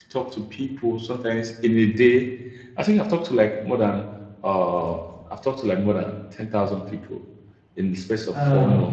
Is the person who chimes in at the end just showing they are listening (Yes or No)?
Yes